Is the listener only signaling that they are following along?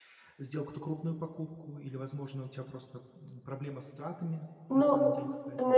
No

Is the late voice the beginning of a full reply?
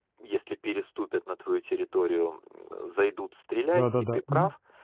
No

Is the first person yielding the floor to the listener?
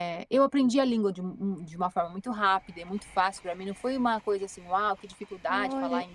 Yes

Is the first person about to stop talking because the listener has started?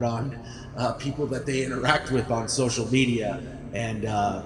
No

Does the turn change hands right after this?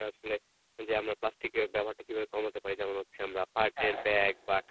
No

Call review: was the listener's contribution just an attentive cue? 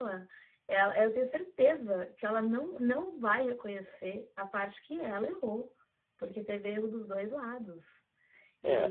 No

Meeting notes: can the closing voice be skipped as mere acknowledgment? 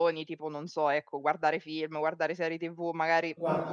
Yes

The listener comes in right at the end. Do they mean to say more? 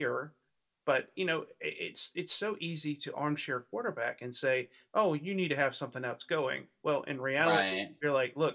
No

